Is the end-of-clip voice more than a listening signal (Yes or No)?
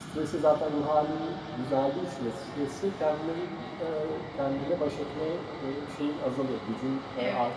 Yes